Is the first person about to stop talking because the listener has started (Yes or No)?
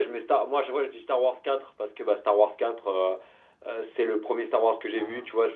No